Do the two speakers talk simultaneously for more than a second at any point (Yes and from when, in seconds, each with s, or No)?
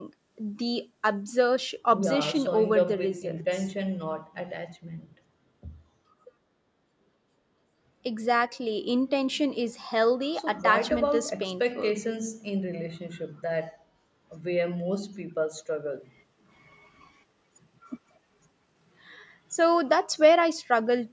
Yes, from 1.9 s